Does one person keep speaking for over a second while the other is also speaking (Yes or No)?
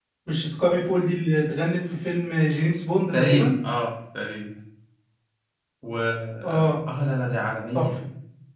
No